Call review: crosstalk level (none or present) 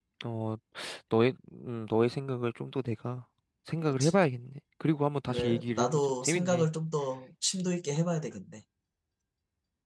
present